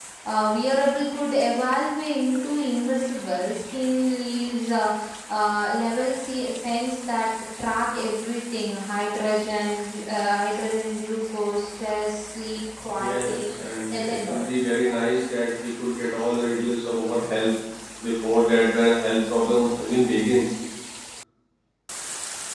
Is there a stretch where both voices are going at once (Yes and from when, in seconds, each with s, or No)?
Yes, from 13.0 s